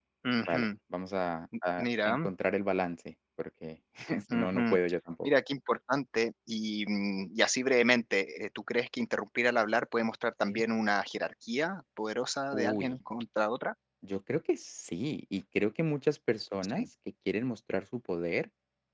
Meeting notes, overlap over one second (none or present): none